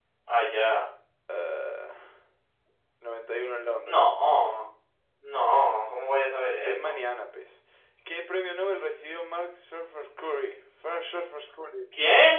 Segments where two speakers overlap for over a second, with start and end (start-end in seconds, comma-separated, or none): none